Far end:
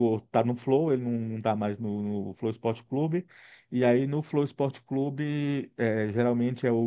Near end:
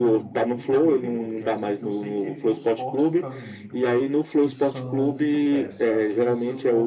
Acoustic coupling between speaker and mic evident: Yes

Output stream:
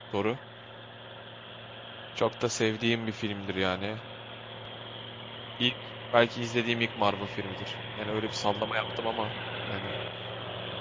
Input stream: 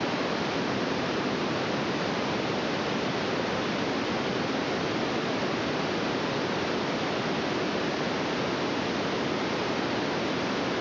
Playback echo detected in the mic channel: No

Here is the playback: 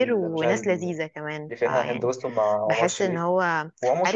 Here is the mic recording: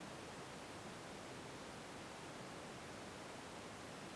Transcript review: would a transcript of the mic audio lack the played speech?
Yes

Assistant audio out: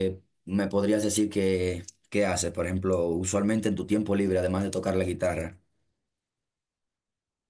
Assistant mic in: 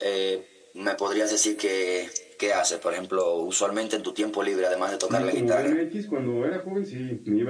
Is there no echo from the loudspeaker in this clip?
No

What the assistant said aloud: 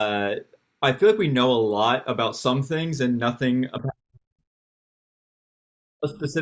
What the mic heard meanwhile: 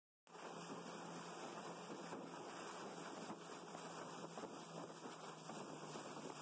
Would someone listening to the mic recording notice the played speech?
No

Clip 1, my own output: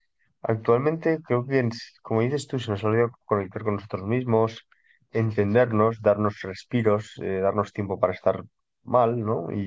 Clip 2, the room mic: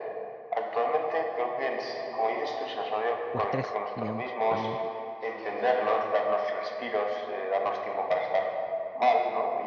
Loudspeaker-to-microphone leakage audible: Yes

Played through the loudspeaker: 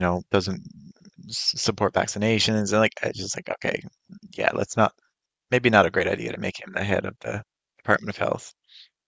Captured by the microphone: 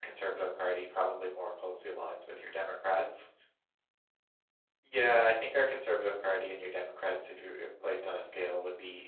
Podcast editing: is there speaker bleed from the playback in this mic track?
No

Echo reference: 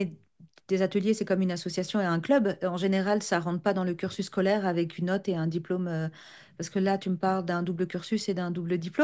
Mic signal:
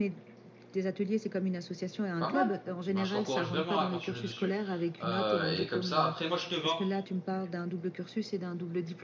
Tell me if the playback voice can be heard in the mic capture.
Yes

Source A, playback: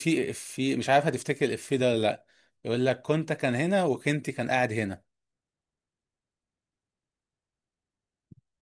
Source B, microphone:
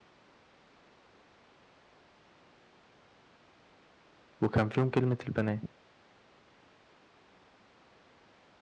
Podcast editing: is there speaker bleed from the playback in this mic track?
No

